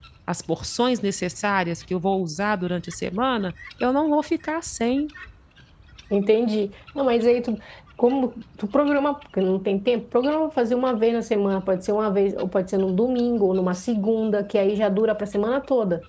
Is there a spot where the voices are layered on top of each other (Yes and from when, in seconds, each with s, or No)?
No